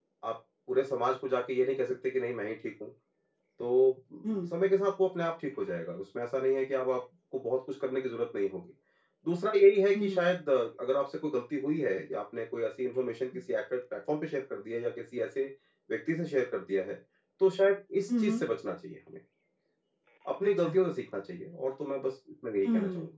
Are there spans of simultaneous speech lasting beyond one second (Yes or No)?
No